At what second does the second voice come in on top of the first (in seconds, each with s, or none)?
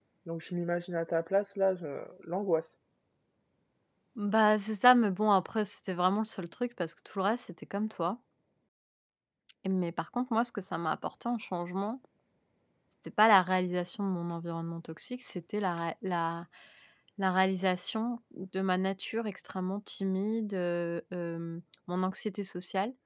none